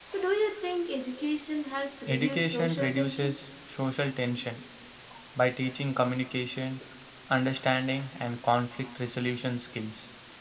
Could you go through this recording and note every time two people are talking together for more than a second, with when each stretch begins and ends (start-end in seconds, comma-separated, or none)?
2.1-3.4